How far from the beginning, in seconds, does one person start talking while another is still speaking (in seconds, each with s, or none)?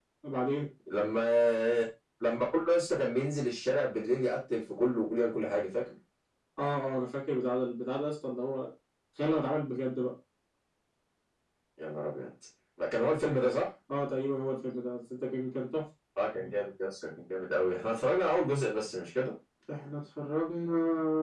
none